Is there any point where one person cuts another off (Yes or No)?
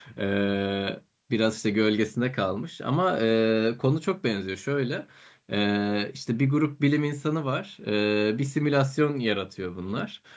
No